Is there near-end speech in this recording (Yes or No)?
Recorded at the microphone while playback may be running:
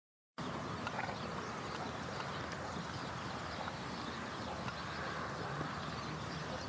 No